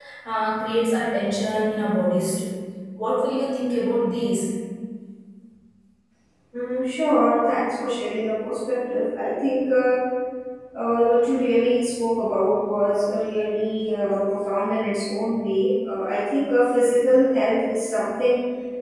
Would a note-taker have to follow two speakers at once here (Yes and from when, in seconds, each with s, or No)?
No